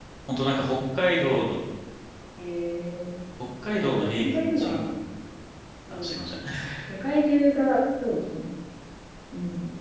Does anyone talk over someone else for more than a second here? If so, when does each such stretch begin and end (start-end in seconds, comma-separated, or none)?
3.7-4.9